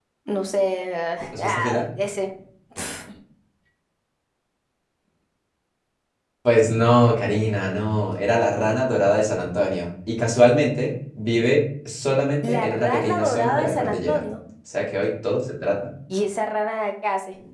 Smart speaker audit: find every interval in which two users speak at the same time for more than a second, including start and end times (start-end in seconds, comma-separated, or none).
12.4-14.2